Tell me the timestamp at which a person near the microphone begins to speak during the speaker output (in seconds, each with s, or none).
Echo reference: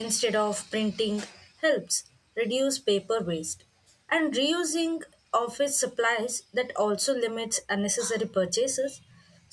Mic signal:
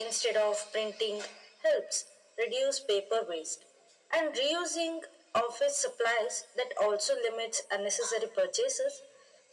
none